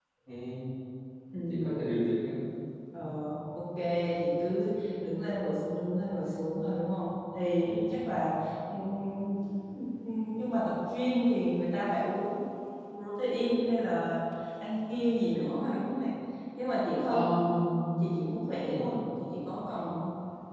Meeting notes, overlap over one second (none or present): none